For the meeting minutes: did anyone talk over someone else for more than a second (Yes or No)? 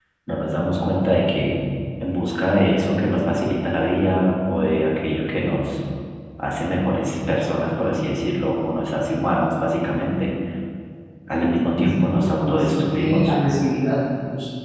Yes